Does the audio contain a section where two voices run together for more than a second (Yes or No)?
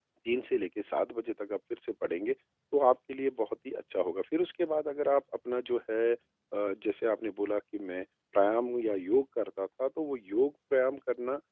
No